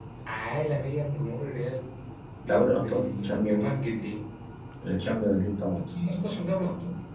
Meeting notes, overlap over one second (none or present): present